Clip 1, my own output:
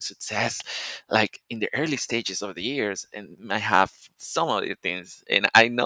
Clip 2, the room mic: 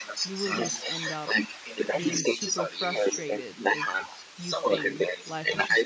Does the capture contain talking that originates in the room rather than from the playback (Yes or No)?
Yes